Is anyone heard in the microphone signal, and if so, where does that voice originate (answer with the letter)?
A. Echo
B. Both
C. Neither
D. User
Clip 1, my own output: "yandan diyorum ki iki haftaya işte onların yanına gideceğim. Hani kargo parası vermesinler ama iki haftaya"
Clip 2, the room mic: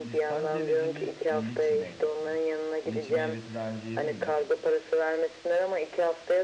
B